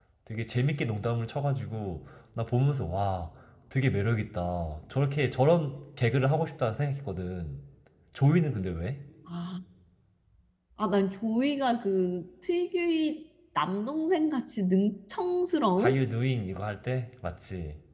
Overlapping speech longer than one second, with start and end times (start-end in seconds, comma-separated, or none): none